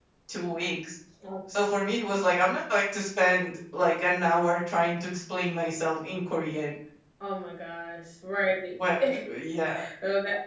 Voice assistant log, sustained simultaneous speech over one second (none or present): none